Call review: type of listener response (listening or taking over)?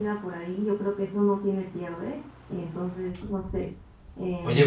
taking over